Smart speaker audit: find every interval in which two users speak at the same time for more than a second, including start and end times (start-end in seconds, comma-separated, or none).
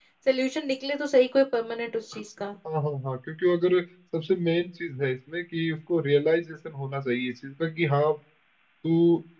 none